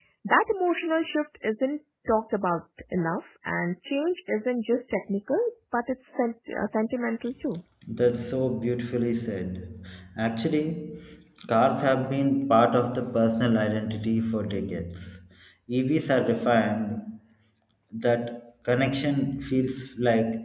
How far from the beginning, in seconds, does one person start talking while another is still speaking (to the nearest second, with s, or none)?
none